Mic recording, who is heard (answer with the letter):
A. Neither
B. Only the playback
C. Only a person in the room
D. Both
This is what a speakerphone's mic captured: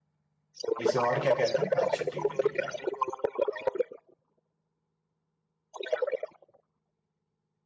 D